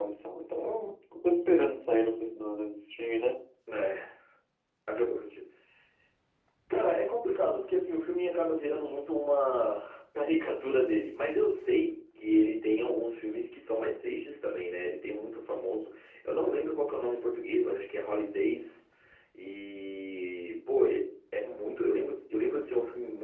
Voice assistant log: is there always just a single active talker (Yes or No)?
Yes